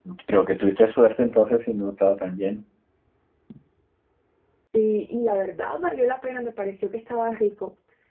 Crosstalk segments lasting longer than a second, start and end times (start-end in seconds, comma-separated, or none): none